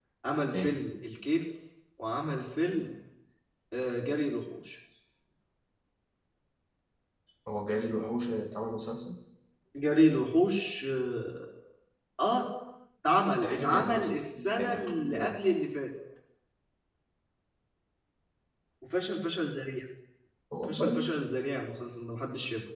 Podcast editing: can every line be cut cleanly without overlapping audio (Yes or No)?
No